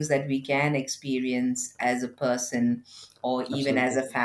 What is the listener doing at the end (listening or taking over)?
listening